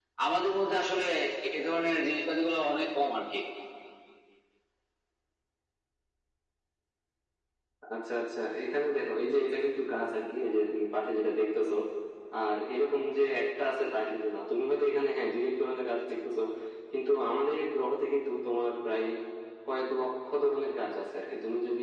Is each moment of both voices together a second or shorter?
Yes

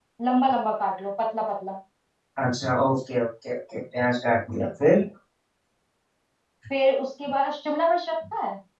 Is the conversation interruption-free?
Yes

